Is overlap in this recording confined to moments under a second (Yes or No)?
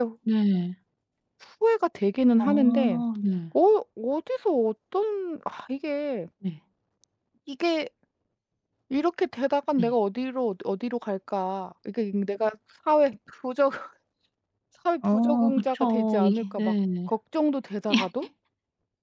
No